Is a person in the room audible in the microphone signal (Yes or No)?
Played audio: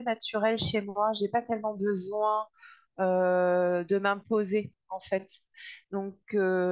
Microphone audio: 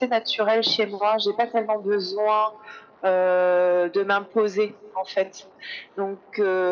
No